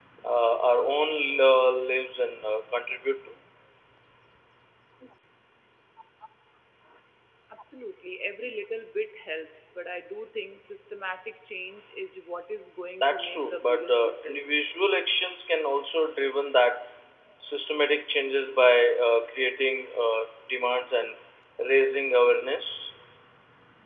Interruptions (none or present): present